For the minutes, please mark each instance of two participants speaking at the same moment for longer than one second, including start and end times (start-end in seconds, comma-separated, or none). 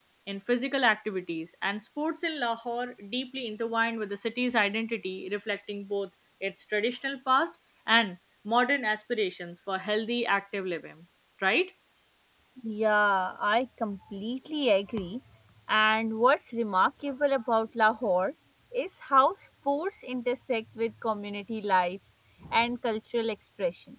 none